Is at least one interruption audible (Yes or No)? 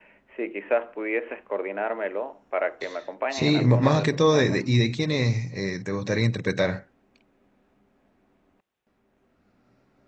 Yes